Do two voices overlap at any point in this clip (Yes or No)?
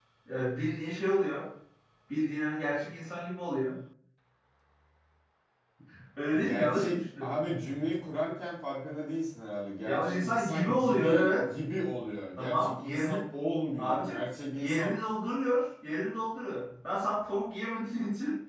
Yes